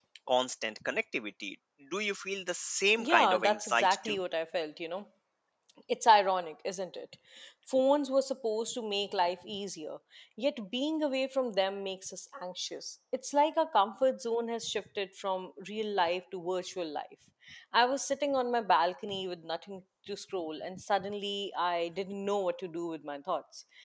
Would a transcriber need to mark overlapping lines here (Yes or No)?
Yes